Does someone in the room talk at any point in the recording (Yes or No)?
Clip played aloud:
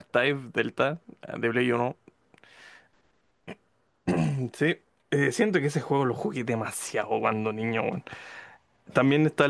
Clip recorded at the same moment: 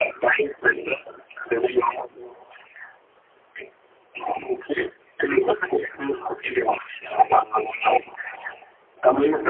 No